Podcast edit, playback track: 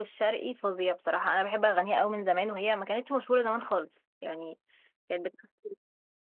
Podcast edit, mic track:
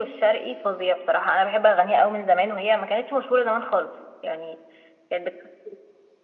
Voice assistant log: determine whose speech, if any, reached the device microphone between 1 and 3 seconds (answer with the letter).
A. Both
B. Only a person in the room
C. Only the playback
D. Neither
C